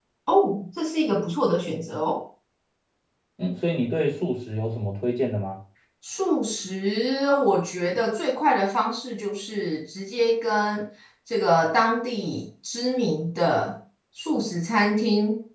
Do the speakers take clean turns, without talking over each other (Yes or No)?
Yes